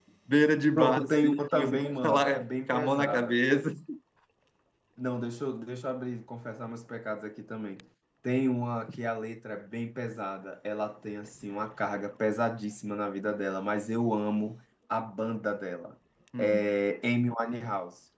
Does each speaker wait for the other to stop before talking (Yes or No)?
No